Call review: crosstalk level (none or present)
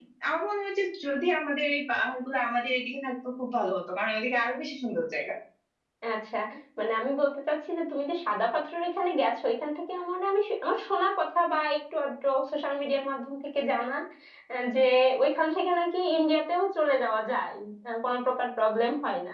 none